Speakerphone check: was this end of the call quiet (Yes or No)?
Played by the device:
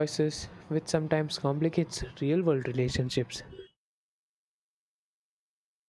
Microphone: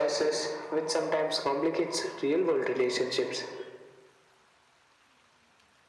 Yes